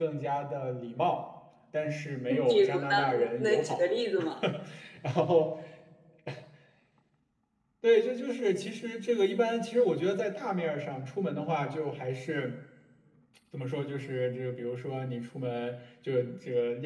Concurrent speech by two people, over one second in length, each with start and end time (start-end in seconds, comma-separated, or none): 2.5-3.8